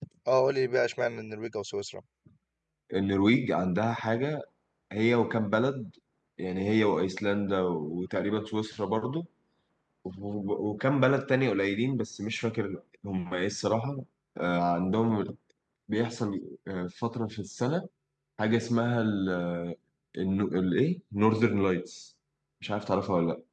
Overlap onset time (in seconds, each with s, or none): none